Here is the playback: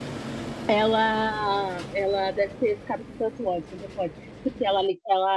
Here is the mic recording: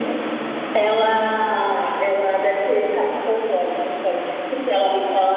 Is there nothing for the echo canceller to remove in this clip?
No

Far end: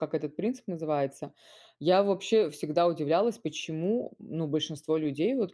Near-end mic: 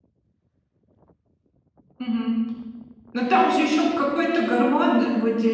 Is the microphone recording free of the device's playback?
Yes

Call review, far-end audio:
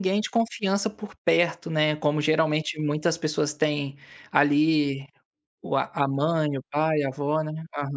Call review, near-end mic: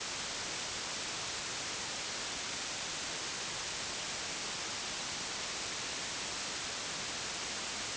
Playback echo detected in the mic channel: No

